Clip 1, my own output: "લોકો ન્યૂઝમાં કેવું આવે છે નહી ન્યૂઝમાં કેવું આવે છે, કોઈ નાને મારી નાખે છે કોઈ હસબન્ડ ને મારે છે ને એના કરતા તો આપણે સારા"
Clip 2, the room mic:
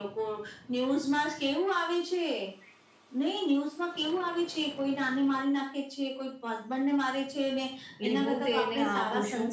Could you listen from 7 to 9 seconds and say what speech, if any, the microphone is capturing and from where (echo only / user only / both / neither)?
both